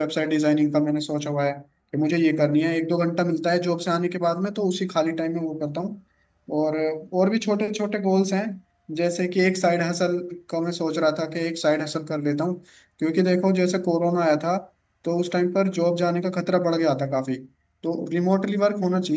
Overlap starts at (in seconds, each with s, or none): none